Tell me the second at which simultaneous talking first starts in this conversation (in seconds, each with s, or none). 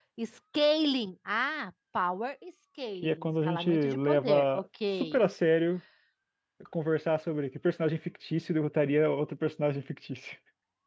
3.0 s